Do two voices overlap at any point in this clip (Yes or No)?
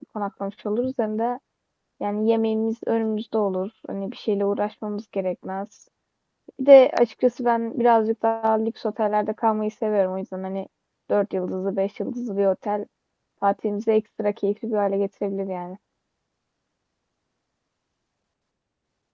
No